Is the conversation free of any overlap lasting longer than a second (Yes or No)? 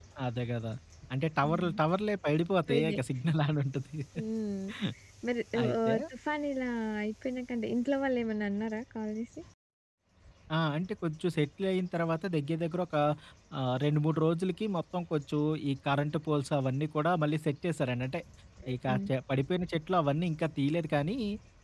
Yes